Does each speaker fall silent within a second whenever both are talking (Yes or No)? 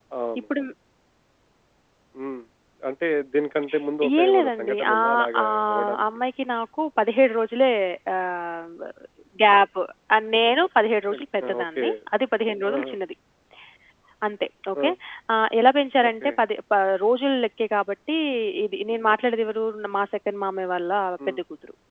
No